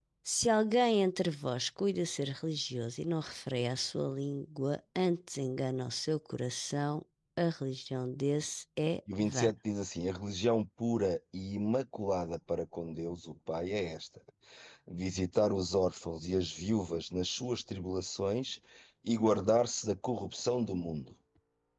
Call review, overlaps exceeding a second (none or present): none